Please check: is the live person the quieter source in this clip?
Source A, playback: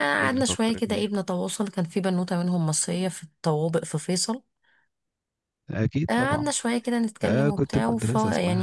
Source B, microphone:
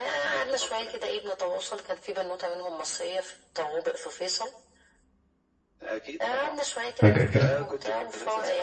No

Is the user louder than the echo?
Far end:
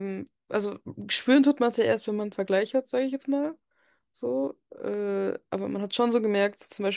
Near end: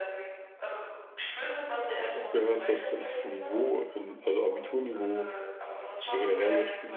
Yes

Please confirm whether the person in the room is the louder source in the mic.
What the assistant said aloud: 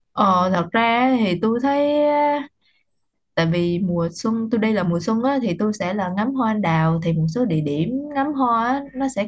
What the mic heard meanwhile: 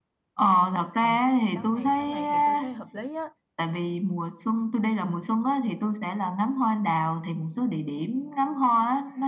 No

